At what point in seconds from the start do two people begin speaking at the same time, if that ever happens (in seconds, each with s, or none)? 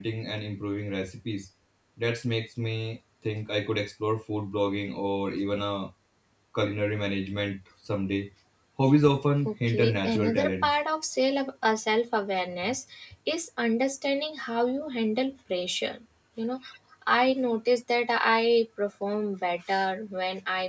9.4 s